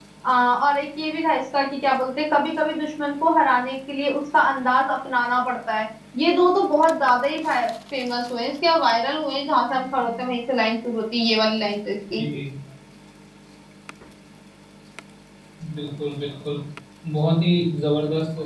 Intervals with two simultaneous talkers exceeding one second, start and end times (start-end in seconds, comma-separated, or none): none